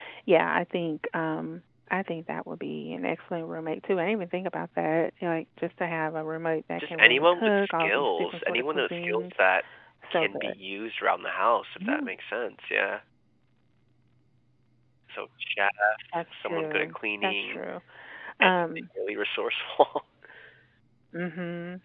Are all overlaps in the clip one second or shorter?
No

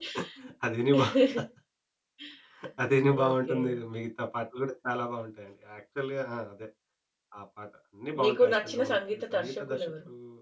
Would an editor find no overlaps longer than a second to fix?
No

